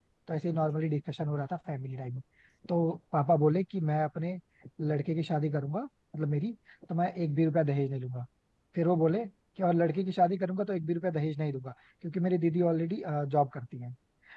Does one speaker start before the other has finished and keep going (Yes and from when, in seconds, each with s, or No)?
No